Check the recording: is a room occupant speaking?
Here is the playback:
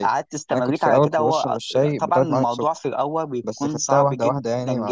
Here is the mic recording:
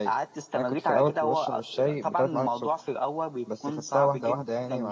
No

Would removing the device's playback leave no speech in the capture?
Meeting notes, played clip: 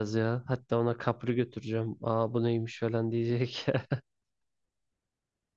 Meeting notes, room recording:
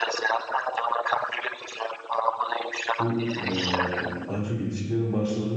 No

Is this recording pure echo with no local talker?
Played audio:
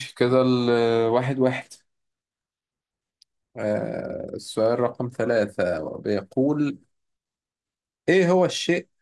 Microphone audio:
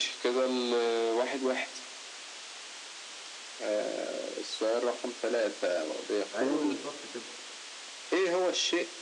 No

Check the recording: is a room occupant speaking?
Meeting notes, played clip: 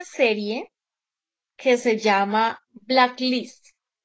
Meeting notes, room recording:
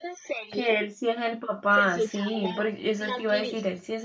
Yes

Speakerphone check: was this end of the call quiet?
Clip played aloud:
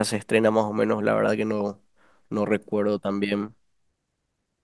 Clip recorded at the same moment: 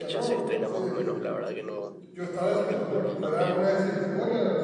No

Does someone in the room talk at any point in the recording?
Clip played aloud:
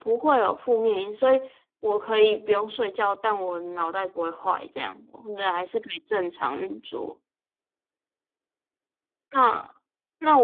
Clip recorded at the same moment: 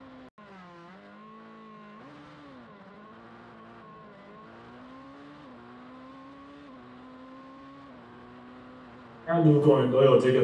Yes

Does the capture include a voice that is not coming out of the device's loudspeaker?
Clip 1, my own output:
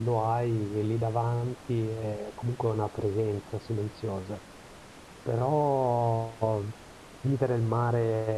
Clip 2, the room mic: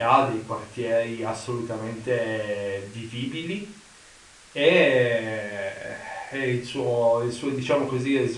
Yes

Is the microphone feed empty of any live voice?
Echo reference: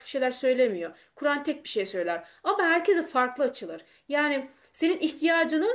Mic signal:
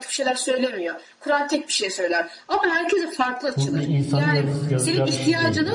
No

